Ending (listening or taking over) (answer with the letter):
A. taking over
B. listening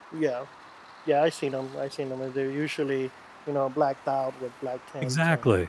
A